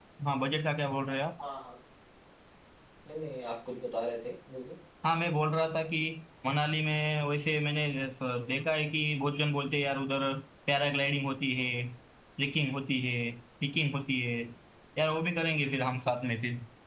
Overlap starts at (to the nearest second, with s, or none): none